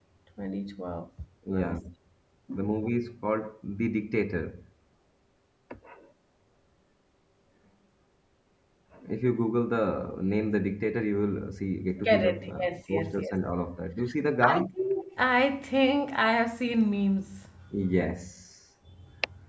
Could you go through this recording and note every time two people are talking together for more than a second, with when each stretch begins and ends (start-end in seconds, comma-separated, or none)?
12.0-13.3